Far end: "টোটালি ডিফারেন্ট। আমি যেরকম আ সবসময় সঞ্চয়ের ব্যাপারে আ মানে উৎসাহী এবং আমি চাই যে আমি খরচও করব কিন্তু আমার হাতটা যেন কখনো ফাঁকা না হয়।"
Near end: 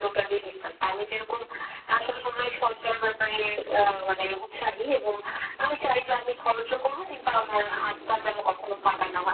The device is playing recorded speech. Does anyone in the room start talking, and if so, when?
none

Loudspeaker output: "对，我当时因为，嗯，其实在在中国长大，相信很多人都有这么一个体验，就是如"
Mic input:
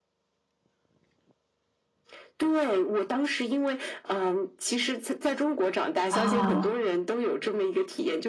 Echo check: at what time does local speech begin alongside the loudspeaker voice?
6 s

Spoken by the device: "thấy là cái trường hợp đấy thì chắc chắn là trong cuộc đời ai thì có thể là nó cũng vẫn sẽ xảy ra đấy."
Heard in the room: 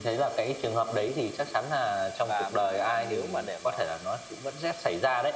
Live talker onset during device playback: 2 s

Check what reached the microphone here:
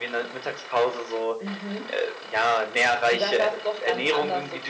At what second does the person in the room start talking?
none

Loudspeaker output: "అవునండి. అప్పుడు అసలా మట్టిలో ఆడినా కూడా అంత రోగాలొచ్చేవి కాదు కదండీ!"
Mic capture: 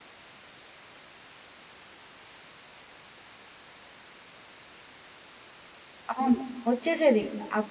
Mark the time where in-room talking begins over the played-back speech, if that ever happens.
6 s

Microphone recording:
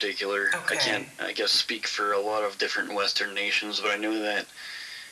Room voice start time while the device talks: 1 s

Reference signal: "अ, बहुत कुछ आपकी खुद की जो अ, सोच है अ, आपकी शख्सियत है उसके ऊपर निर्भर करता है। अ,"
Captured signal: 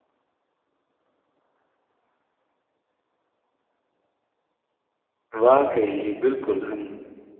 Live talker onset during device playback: 5 s

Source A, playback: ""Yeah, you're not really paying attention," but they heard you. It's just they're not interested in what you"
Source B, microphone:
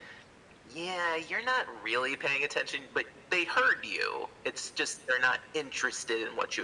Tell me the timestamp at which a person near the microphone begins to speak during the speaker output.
none

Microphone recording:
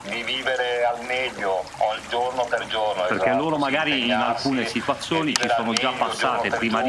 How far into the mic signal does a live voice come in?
3 s

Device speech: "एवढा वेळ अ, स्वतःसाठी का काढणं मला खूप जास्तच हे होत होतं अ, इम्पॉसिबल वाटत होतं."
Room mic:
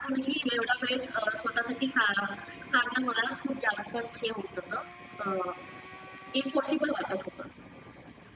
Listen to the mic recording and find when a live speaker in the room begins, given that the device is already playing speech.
none

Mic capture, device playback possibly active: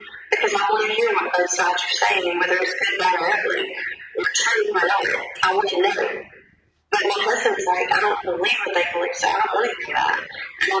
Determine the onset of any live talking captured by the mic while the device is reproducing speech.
none

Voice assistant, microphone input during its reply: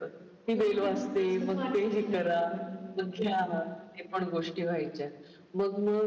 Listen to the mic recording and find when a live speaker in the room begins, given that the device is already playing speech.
1 s

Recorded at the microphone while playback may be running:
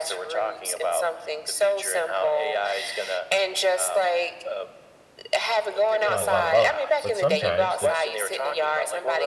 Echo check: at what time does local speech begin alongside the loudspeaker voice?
6 s

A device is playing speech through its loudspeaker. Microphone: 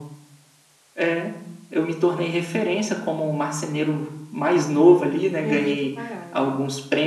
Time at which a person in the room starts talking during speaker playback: 5 s

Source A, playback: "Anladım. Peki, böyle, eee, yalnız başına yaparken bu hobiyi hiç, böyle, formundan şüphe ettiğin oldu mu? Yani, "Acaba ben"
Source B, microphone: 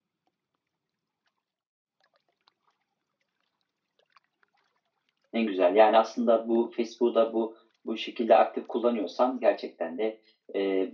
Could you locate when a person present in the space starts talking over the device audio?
5 s

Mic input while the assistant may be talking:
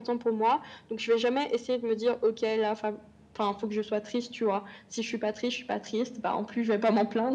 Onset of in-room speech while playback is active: none

